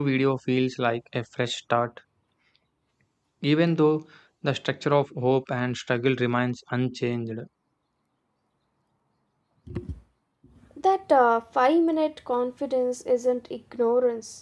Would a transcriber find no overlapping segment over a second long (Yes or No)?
Yes